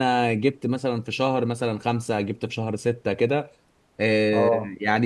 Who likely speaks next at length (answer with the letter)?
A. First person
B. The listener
A